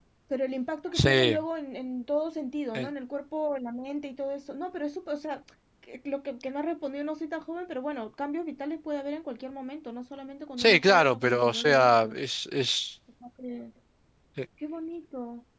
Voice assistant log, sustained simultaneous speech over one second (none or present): present